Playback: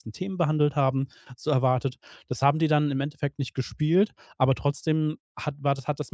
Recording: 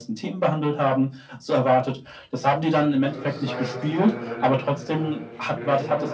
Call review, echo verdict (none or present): present